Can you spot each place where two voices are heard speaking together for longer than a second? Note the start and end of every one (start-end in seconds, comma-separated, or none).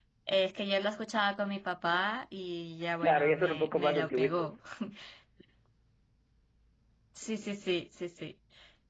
3.0-4.6